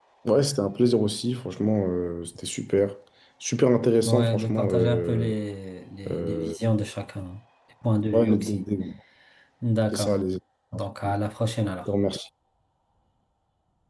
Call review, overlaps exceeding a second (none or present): present